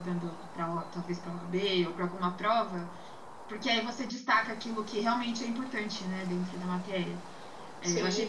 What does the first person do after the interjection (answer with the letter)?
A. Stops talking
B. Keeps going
B